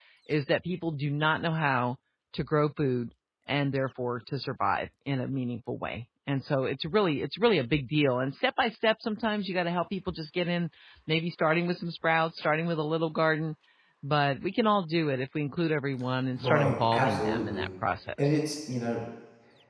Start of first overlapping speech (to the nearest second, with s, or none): 16 s